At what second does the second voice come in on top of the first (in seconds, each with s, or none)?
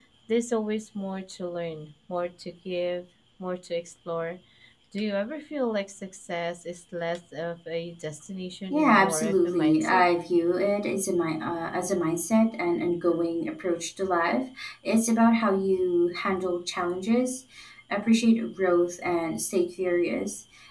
8.7 s